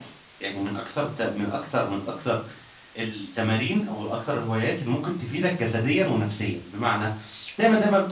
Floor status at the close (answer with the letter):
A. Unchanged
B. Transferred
A